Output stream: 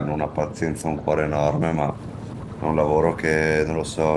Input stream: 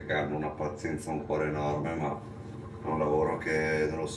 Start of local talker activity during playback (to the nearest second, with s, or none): none